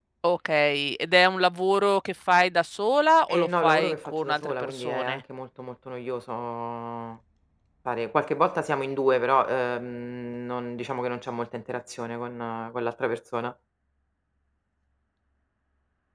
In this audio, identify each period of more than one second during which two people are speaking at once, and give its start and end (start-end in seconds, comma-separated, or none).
3.3-5.2